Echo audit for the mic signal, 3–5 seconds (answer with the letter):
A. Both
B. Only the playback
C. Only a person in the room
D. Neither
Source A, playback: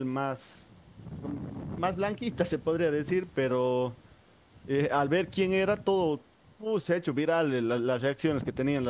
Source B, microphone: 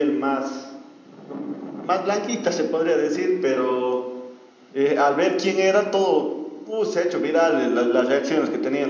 B